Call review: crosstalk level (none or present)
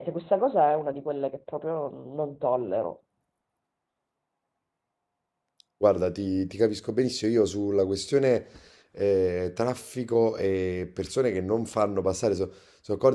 none